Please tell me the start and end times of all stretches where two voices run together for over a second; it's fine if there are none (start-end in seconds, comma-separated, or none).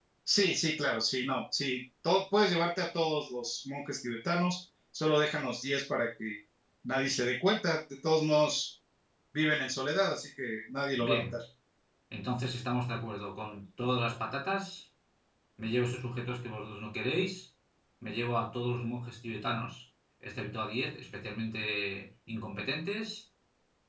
none